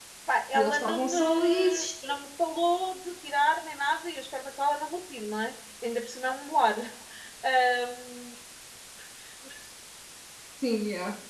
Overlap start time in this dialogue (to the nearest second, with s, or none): 1 s